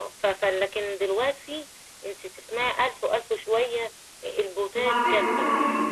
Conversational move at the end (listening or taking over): taking over